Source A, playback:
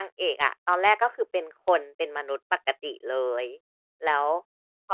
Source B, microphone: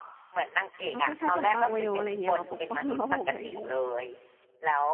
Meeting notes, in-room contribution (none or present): present